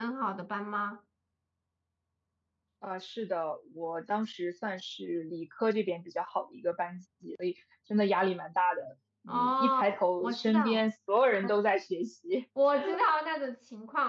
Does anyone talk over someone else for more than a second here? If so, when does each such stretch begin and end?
9.3-10.8

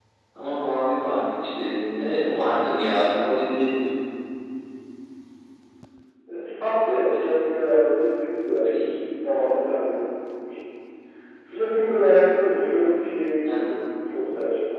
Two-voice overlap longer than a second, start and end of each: none

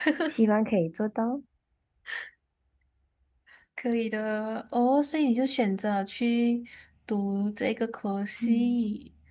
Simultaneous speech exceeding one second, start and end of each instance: none

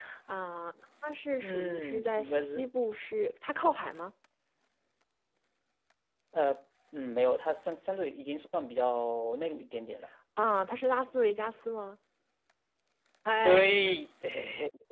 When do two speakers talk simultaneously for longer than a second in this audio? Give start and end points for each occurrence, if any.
1.4-2.6

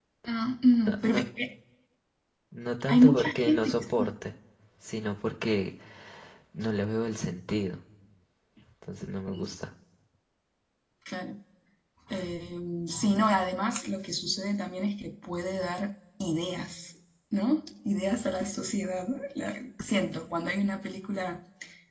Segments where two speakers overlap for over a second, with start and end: 2.9-4.1

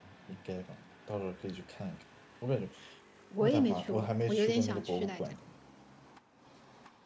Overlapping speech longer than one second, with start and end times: 3.4-5.3

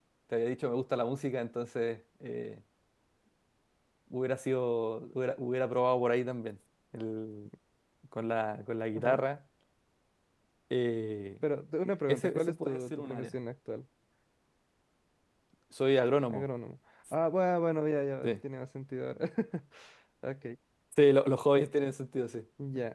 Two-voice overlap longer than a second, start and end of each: 12.1-13.3

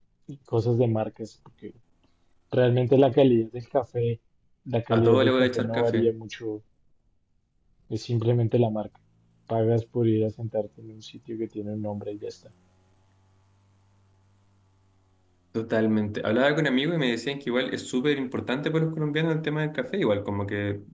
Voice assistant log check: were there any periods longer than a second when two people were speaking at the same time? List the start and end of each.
4.9-6.1

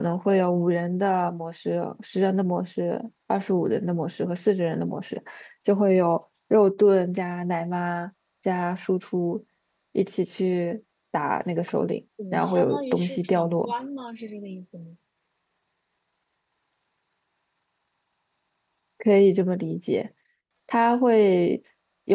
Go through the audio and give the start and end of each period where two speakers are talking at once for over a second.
12.3-13.7

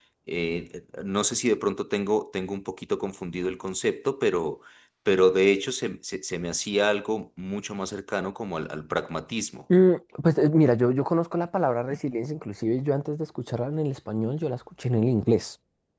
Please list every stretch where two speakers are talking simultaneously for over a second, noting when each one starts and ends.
none

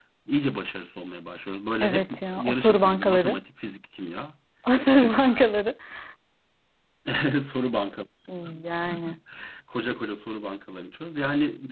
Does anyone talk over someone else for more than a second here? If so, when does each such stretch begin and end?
1.8-3.4

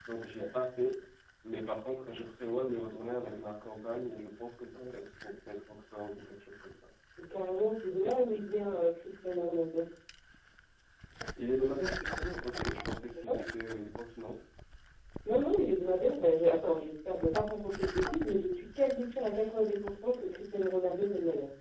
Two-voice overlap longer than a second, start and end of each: none

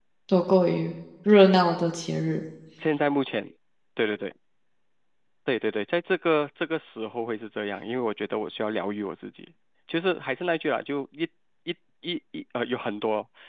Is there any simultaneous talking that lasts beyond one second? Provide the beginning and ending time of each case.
none

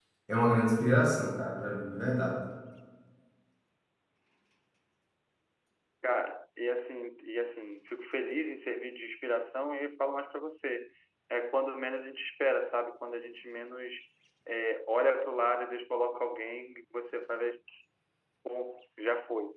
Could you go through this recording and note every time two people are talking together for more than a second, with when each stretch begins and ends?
none

